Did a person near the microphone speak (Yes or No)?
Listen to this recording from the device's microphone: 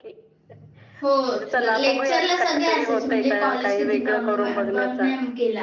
Yes